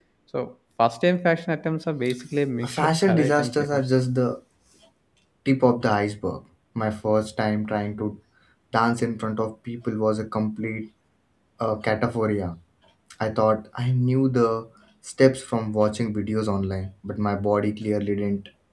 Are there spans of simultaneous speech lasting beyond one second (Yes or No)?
Yes